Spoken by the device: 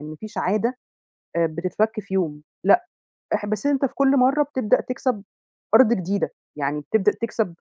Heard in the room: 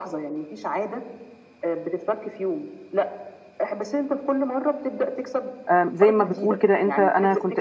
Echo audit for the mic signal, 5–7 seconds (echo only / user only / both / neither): both